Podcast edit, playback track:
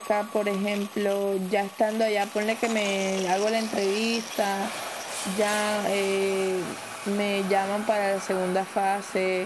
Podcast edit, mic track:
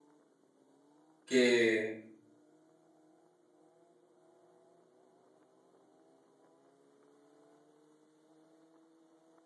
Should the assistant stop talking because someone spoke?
Yes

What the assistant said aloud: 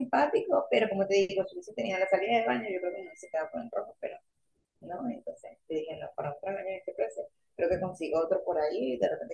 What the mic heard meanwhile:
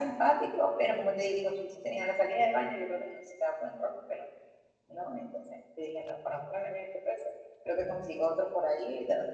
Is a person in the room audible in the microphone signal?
No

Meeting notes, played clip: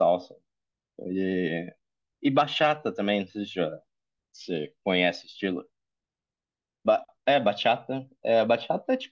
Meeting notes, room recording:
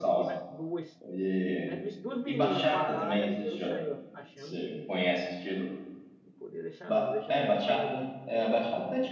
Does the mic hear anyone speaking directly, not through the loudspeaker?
Yes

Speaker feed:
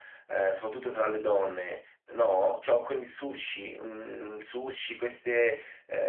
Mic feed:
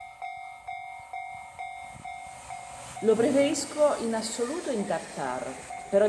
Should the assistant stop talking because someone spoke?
Yes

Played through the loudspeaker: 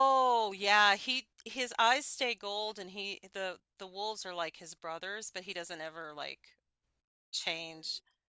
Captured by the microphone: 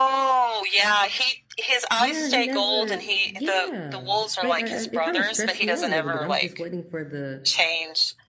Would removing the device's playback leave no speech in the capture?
No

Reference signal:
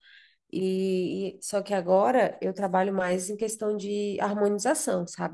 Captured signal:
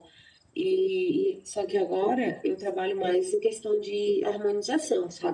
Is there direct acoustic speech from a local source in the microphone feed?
No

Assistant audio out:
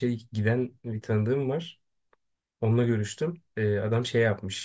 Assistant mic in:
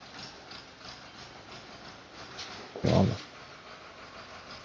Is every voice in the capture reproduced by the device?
No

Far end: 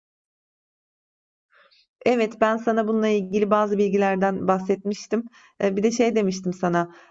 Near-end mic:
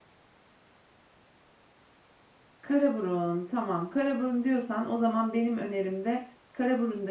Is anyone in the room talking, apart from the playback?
Yes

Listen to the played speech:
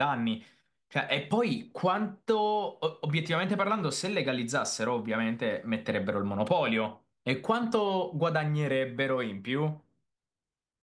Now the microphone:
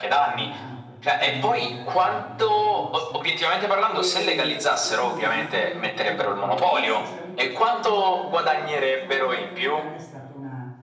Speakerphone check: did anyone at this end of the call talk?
Yes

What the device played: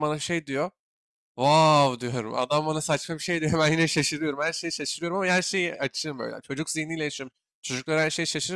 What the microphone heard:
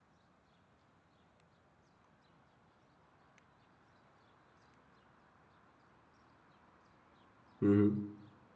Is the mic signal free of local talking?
No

